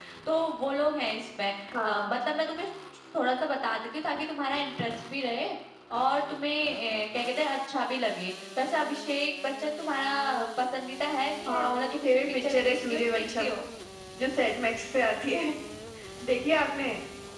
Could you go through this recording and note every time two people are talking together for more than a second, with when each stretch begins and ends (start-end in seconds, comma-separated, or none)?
11.5-13.6